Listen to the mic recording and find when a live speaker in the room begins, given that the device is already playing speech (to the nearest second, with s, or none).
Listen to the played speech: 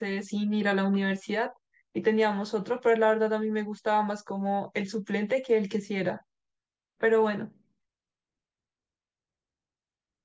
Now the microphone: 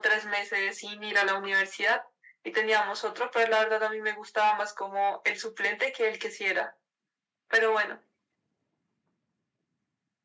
none